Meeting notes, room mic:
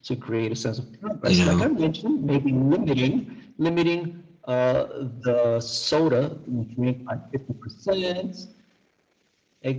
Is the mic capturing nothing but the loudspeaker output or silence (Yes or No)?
No